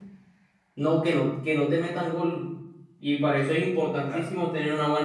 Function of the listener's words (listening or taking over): listening